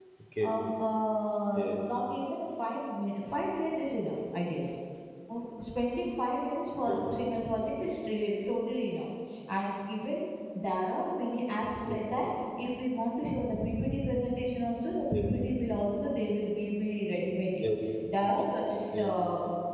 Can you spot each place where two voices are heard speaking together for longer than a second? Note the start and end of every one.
none

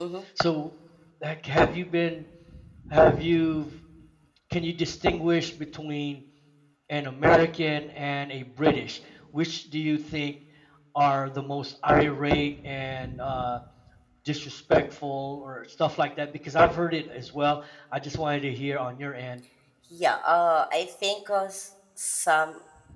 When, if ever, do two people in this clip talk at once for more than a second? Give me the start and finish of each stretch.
none

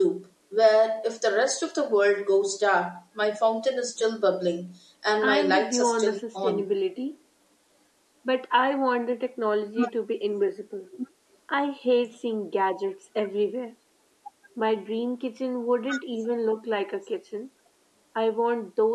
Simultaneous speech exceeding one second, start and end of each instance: 5.2-6.7

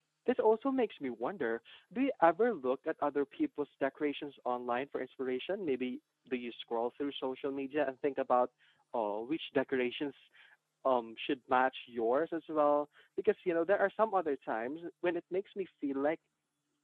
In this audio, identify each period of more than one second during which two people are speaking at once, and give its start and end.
none

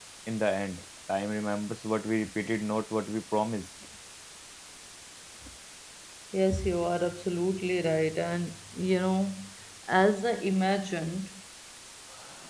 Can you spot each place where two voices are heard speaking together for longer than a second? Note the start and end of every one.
none

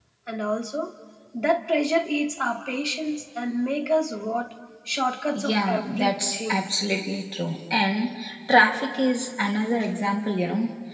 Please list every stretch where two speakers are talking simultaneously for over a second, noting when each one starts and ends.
5.5-6.7

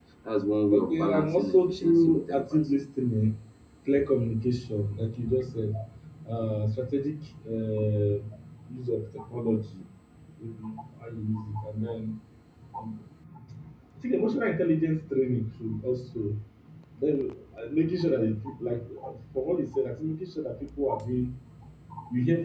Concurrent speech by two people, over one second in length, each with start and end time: 0.7-2.7

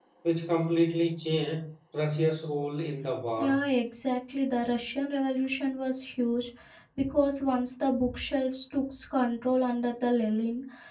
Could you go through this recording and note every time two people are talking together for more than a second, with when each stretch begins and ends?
none

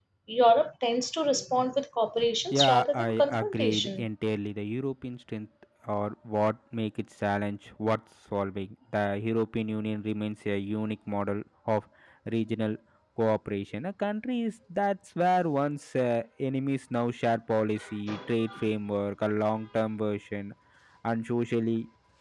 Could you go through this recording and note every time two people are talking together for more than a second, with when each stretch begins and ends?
2.5-4.0

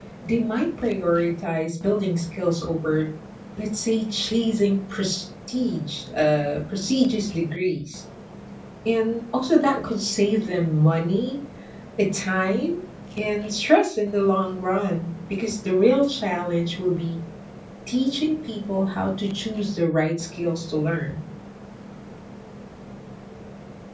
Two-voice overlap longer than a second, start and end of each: none

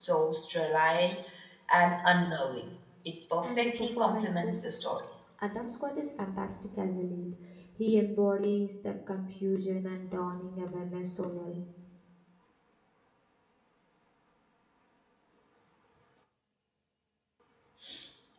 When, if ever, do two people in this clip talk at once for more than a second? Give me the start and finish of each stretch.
3.4-4.9

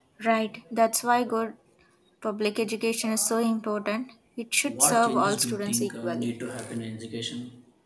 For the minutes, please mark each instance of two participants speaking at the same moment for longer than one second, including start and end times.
4.7-6.3

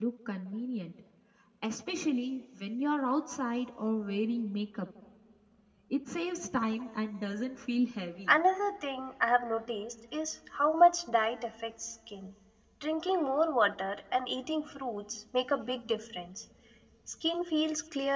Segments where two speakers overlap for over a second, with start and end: none

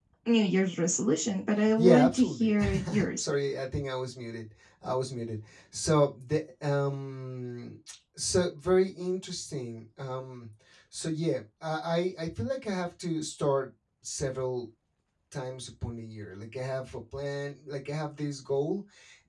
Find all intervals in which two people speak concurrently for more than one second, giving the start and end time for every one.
1.8-3.2

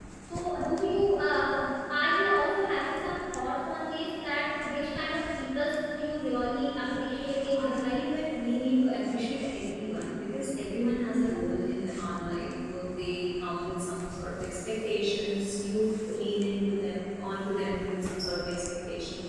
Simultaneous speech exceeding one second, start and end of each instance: none

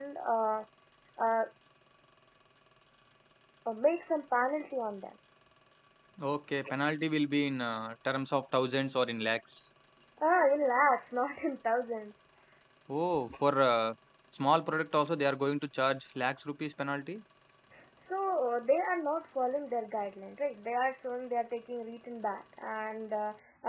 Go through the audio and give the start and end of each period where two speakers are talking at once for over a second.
none

